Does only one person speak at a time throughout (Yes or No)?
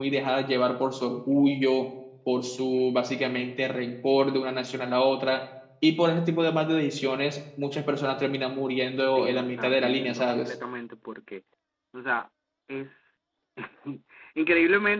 No